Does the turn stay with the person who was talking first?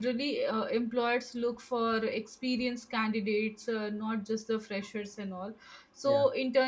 Yes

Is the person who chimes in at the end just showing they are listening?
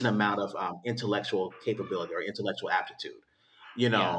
Yes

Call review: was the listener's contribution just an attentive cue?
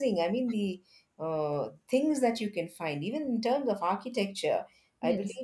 Yes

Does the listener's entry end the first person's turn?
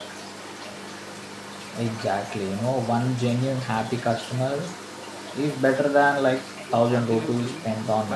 Yes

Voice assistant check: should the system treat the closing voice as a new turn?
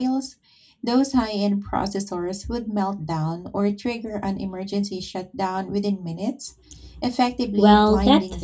Yes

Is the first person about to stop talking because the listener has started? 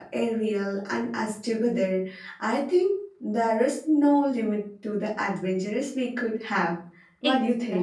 Yes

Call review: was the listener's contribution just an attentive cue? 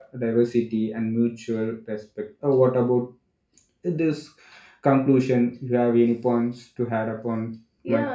No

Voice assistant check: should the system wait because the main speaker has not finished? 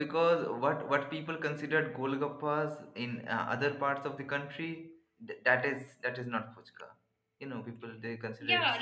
No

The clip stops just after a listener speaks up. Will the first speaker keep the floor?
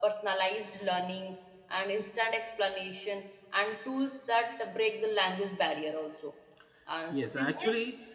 No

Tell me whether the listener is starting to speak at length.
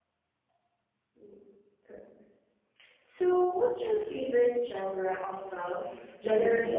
Yes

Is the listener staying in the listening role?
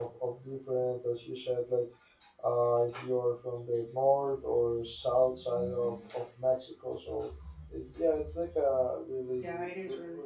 No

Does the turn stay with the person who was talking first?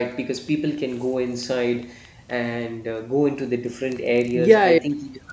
No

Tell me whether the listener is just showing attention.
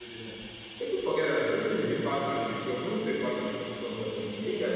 Yes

